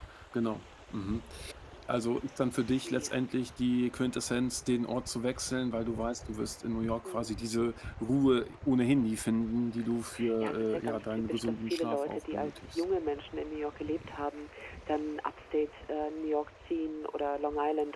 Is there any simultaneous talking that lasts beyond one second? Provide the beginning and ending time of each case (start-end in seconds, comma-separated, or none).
10.4-12.8